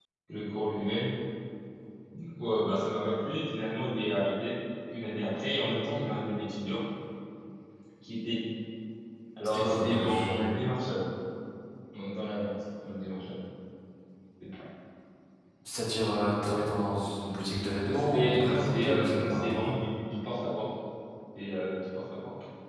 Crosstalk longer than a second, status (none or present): present